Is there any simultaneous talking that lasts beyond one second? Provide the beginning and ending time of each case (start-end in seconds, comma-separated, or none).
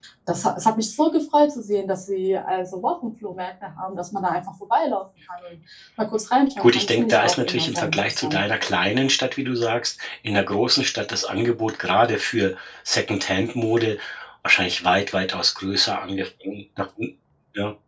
6.6-8.4